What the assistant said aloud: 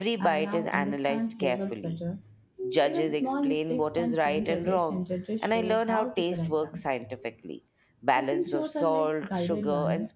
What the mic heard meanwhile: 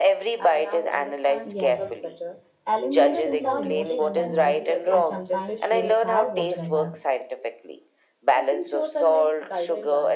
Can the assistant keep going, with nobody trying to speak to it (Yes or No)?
No